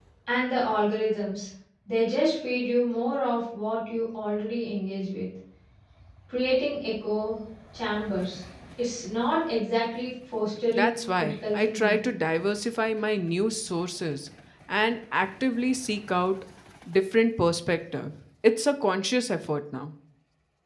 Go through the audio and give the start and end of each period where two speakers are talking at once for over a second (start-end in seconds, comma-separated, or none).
10.7-12.0